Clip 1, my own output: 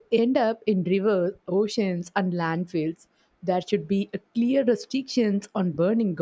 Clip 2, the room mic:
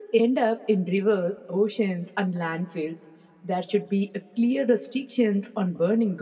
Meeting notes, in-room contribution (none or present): none